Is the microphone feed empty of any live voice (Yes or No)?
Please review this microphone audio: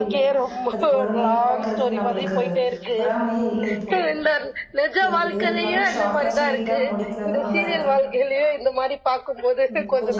No